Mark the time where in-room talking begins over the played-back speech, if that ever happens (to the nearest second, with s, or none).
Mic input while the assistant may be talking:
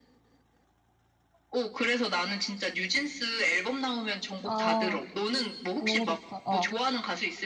4 s